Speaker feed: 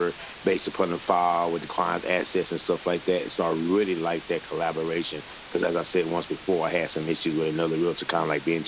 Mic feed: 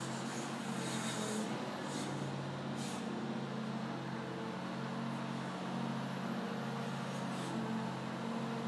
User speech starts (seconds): none

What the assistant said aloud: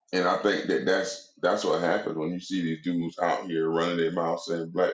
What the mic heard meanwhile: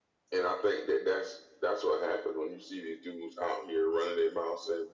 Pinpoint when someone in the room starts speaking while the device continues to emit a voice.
none

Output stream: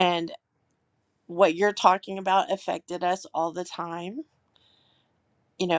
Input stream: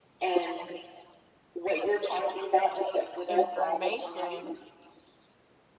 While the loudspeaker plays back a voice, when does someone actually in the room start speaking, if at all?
3.3 s

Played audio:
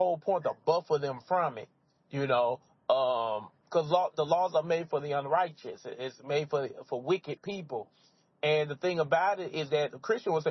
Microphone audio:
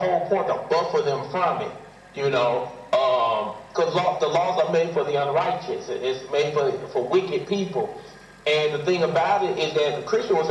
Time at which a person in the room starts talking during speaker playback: none

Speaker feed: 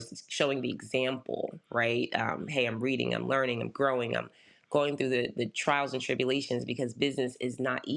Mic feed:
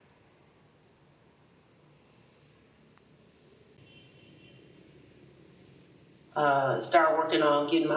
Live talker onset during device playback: 6.4 s

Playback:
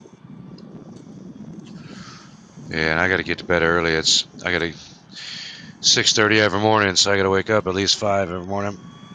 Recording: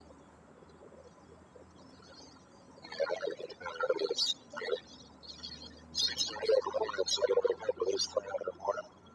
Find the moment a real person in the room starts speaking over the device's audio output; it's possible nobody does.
none

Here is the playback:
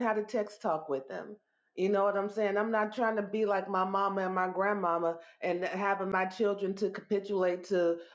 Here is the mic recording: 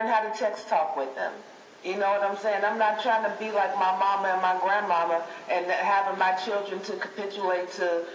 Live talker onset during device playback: none

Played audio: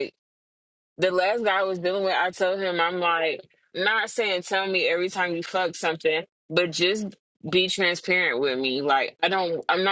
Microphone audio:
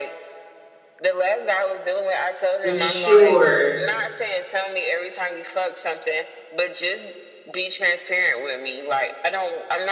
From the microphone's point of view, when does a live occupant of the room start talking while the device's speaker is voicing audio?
2.6 s

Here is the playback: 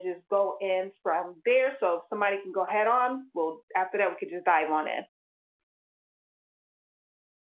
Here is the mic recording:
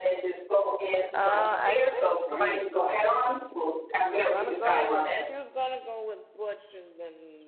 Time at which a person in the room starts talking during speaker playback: 1.1 s

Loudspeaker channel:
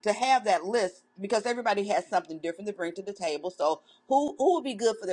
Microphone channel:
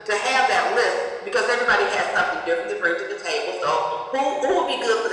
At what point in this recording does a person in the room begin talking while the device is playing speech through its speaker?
none

